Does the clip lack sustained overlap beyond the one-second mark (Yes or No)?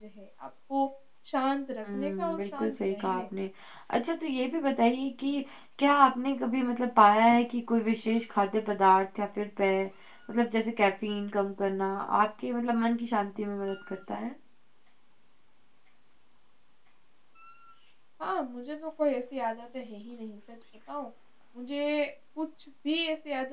No